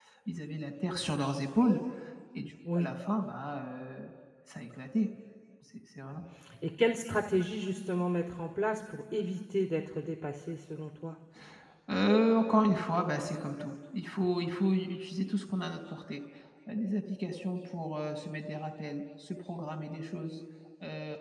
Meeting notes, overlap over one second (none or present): none